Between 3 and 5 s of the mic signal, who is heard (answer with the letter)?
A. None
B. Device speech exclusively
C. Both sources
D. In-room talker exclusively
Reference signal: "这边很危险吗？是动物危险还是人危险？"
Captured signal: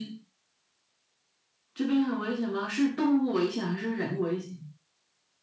B